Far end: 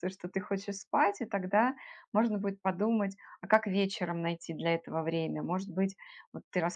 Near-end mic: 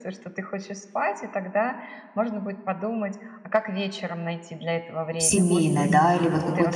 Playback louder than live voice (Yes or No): No